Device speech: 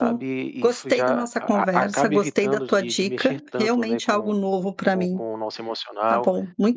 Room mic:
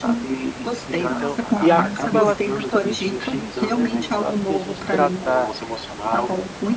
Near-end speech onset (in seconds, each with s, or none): 0.9 s